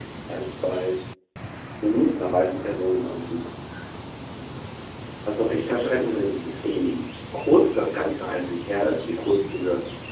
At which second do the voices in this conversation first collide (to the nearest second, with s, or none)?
6 s